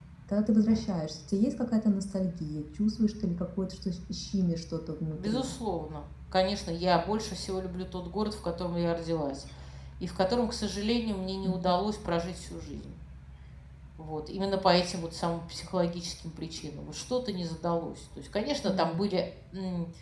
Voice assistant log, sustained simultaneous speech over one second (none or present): none